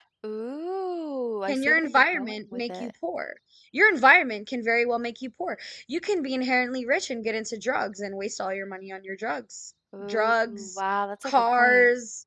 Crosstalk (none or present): present